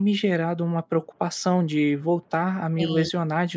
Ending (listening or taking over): listening